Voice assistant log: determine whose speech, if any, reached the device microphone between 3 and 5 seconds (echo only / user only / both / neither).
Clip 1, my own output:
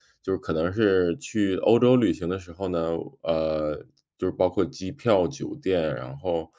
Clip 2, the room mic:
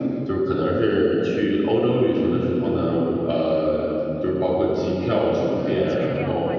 echo only